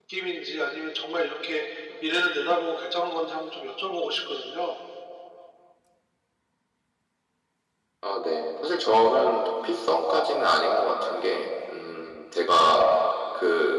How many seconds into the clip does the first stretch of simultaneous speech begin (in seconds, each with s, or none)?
none